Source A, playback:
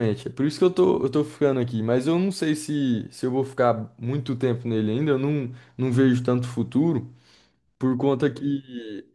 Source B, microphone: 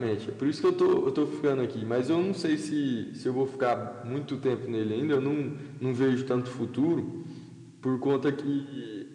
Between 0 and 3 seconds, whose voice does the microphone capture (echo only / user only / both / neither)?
echo only